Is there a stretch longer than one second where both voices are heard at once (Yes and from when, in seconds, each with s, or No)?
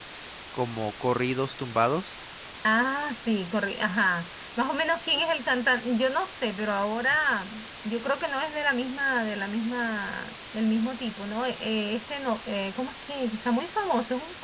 No